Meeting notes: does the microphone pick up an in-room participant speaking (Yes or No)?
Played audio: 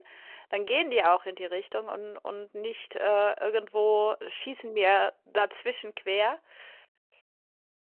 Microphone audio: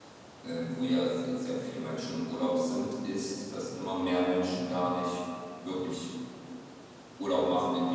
Yes